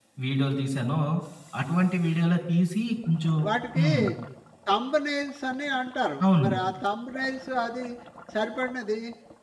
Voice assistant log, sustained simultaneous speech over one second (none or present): none